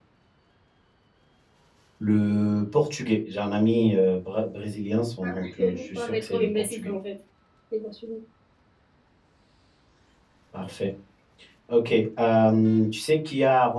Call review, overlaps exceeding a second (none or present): present